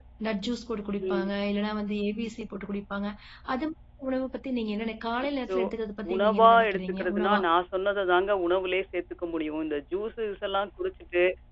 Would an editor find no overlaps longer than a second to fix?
No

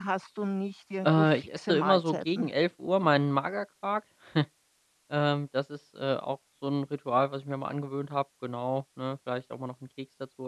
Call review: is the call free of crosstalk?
No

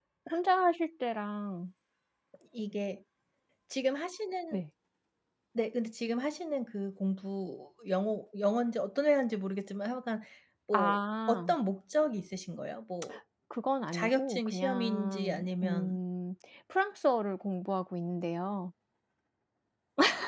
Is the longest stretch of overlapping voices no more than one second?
No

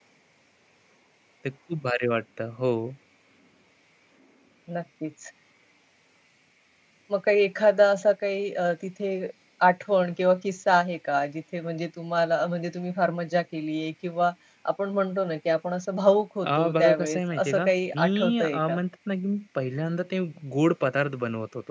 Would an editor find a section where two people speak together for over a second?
Yes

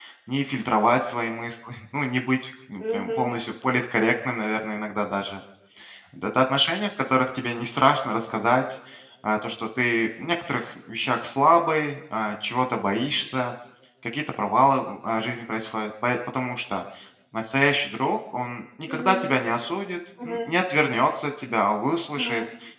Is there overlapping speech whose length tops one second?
No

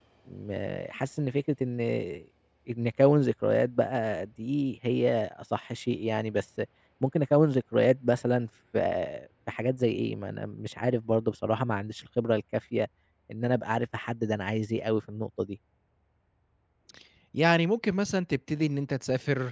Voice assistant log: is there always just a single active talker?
Yes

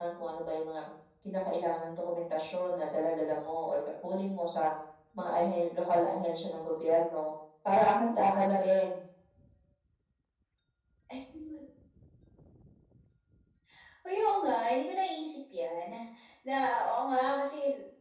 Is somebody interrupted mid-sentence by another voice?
No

